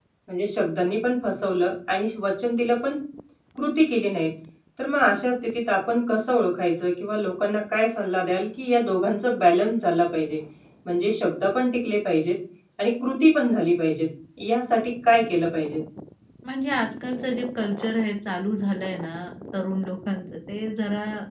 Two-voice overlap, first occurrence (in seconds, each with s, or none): none